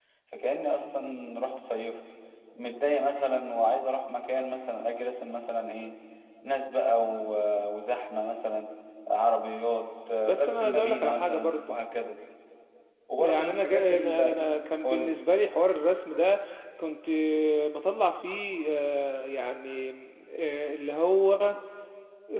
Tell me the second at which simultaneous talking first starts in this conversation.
10.2 s

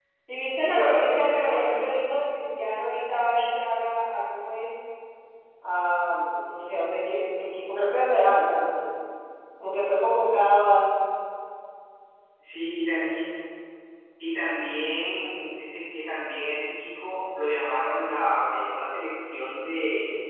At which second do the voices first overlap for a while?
0.6 s

